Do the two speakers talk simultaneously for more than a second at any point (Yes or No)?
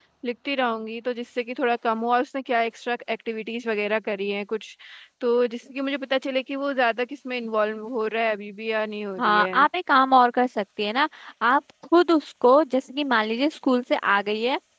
No